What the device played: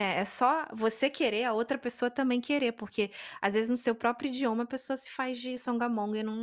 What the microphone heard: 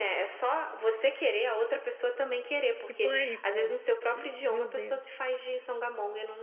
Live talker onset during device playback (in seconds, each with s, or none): 2.8 s